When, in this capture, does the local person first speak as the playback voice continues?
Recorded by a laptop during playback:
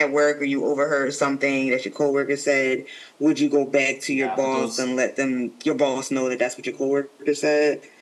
4.1 s

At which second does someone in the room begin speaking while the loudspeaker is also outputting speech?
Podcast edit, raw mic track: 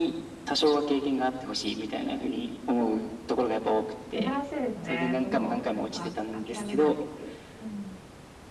4.1 s

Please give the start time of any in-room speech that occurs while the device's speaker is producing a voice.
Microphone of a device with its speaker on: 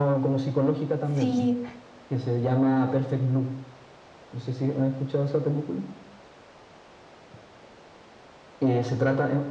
1.2 s

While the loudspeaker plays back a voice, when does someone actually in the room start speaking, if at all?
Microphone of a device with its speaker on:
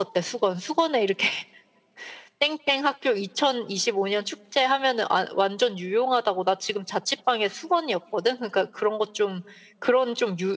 none

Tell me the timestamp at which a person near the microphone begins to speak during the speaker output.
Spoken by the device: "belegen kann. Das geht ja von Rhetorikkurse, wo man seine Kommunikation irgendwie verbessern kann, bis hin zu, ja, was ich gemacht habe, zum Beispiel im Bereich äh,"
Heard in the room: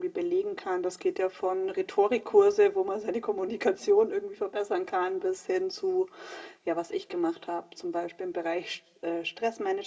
none

